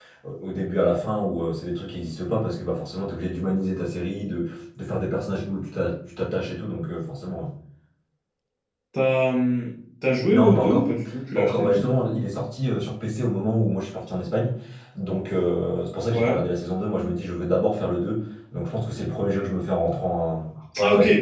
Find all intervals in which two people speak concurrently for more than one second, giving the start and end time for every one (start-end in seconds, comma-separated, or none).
10.3-12.0